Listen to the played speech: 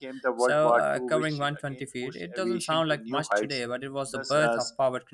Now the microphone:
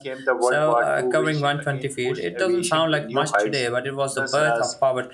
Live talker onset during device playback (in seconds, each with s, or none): none